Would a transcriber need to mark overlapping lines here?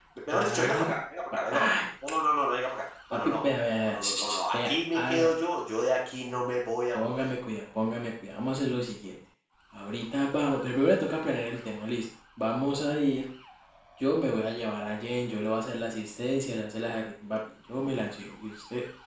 Yes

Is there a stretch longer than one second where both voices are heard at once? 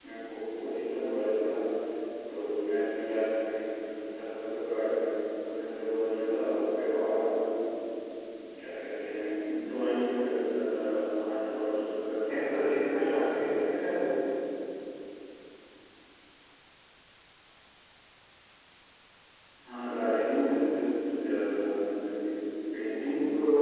Yes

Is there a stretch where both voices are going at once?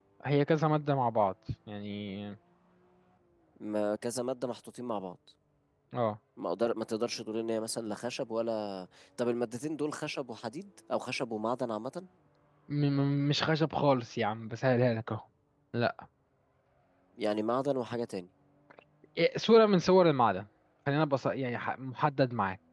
No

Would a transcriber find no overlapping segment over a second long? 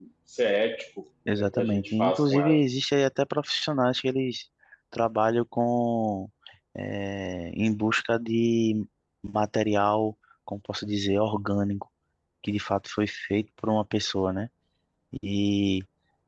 No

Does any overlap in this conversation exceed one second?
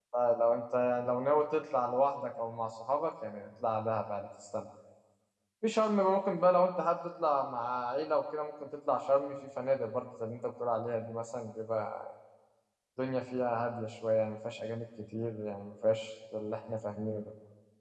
No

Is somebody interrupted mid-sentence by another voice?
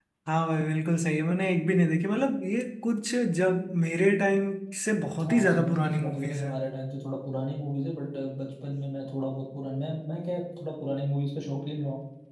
Yes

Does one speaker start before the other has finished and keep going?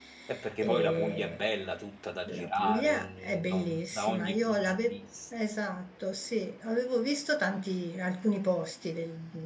Yes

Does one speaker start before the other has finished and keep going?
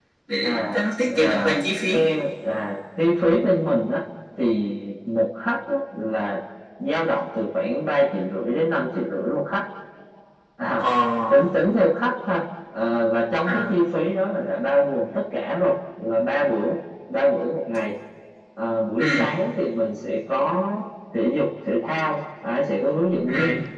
Yes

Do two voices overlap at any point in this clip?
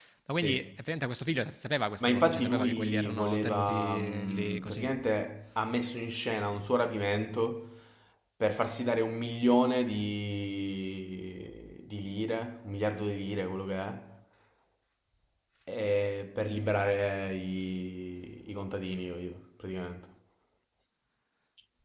Yes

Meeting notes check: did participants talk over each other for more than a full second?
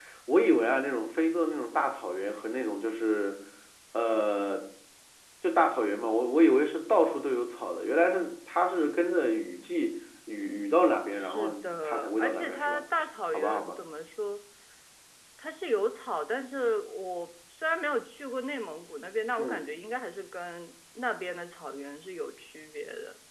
Yes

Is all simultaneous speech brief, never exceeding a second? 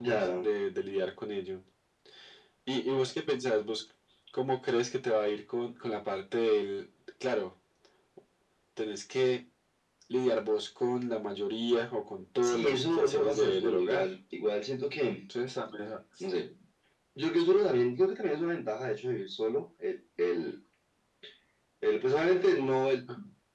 No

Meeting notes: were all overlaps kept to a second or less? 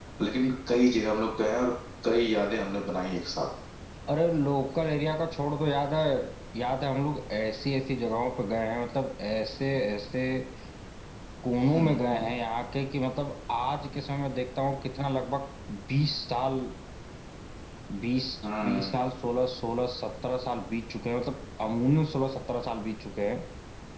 Yes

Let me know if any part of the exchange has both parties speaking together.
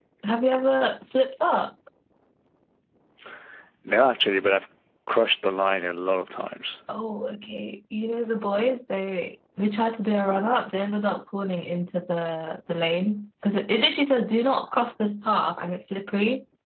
No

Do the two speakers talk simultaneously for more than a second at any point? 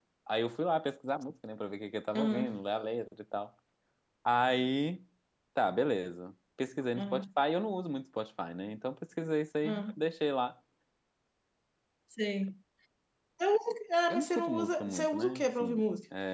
Yes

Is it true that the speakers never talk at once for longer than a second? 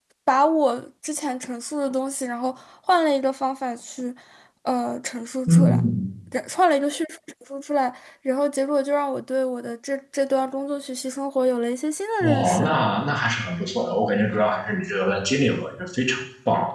Yes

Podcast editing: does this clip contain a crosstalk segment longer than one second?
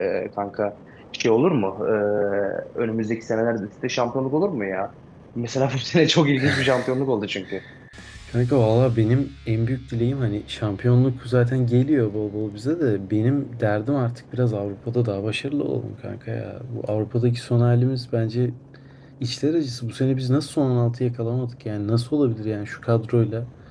No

